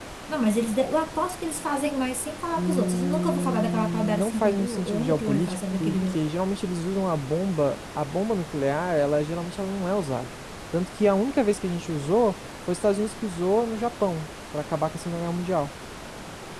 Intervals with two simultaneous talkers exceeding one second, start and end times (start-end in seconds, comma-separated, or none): 2.5-6.2